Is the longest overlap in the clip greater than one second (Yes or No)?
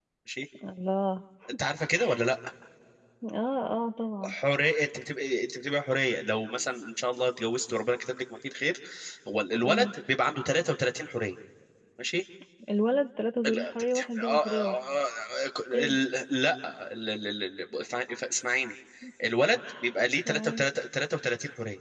Yes